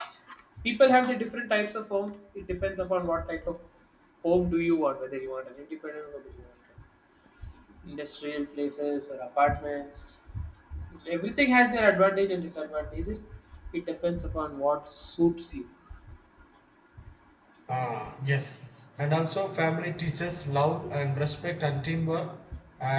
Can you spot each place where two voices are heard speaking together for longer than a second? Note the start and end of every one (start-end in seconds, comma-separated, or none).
none